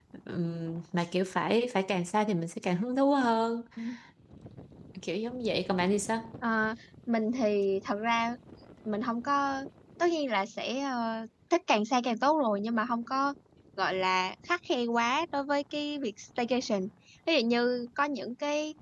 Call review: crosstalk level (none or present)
none